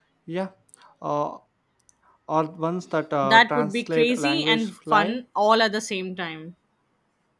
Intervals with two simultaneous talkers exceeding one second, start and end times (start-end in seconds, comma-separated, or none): 3.2-5.2